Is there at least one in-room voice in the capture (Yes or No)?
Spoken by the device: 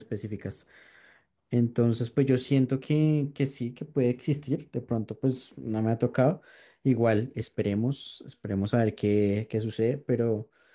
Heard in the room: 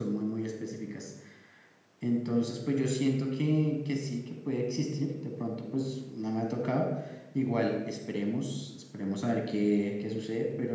No